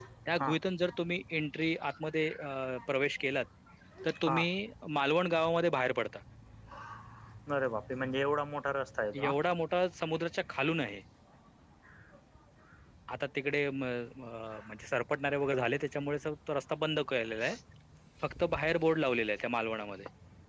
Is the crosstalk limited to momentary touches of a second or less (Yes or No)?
Yes